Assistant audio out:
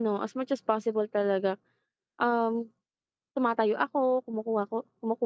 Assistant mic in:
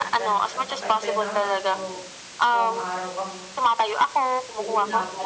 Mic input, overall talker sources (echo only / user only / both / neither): both